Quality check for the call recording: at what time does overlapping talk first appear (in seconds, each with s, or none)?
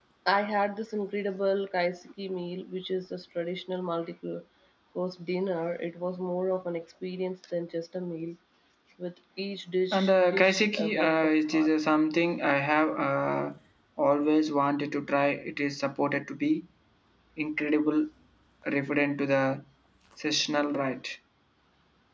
9.9 s